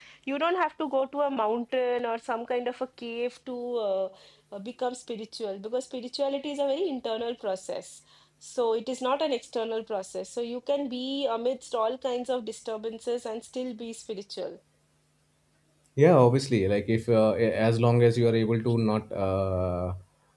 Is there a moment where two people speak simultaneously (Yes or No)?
No